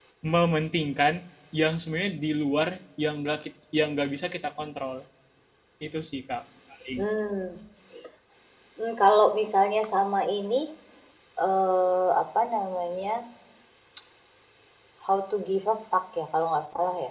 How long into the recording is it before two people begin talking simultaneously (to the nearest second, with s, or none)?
none